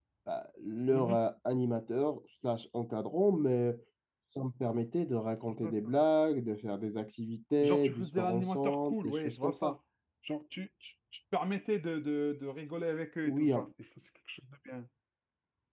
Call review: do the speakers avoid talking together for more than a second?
No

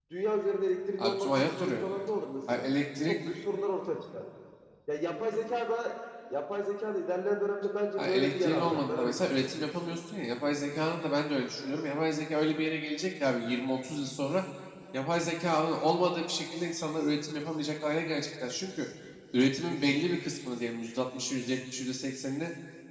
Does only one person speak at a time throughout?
No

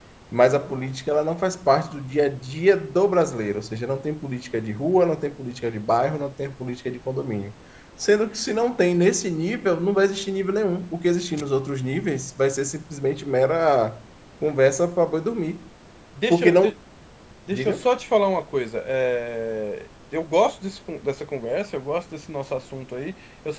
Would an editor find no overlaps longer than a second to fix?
Yes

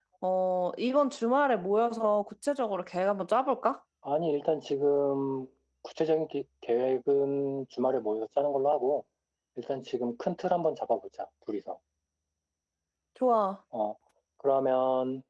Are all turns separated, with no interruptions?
Yes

